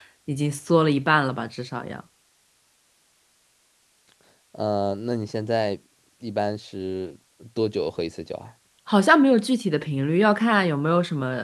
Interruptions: none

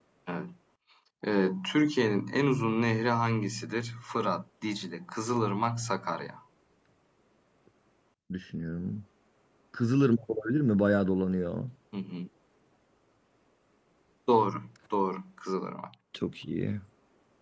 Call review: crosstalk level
none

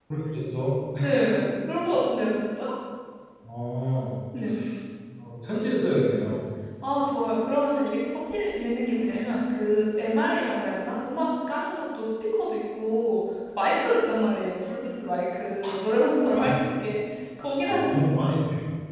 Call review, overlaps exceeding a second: none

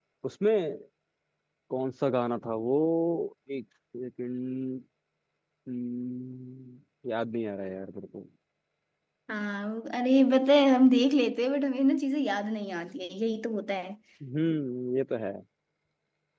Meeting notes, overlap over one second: none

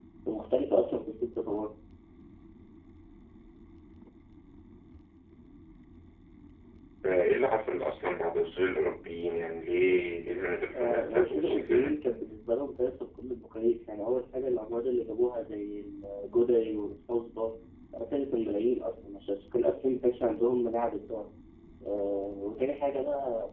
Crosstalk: present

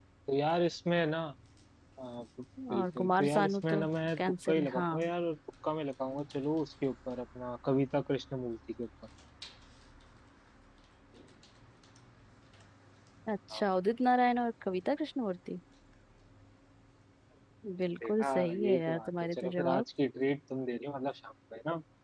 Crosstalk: present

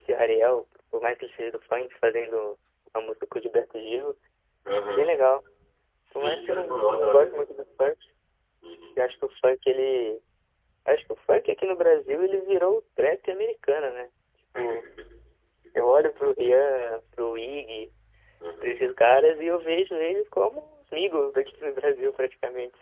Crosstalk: present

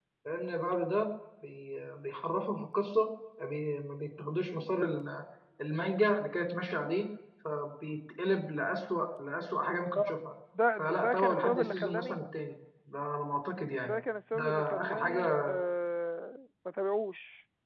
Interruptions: present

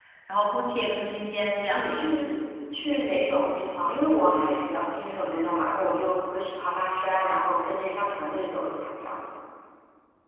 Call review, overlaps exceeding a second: none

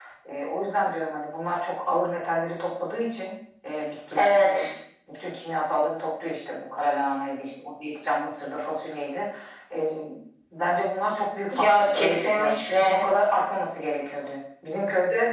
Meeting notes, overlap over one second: present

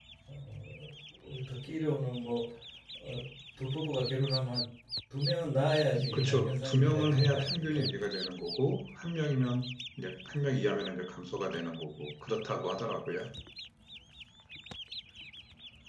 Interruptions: present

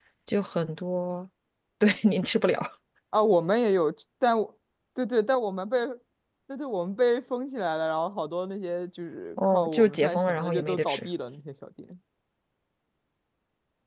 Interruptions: present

